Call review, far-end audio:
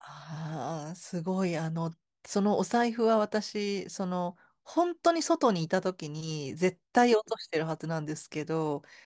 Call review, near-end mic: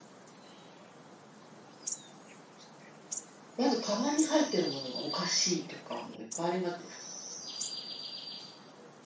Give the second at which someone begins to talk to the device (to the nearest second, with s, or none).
4 s